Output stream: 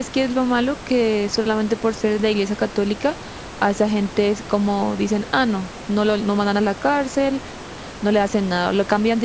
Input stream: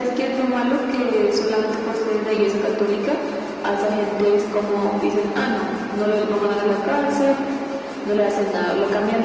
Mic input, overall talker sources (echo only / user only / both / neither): echo only